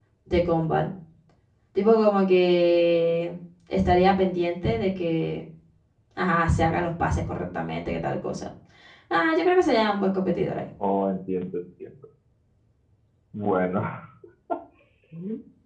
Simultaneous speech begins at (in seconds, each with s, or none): none